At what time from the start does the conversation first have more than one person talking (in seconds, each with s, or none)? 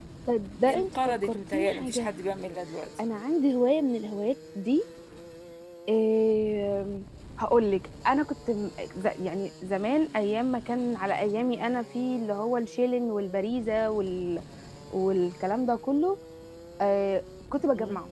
0.7 s